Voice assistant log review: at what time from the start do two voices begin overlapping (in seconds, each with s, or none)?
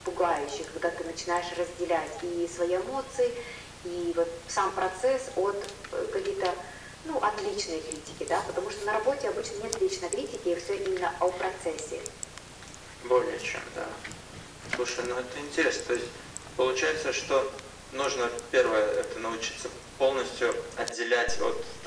none